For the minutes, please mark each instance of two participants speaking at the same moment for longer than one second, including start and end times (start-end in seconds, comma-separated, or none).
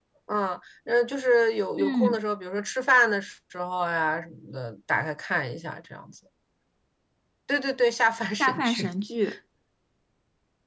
none